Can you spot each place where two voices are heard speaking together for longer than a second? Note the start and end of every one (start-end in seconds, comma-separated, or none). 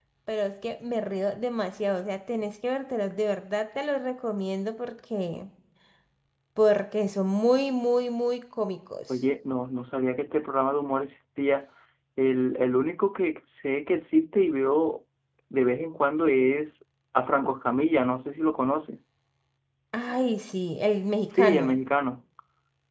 none